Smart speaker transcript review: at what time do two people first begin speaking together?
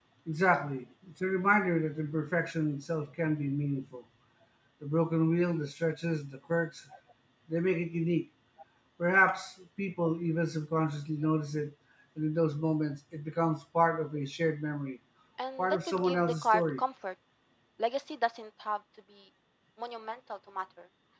15.6 s

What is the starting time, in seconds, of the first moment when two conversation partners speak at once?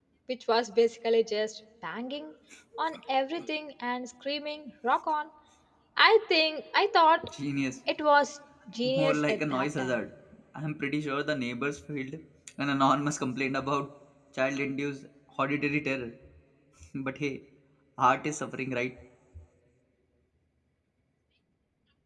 8.8 s

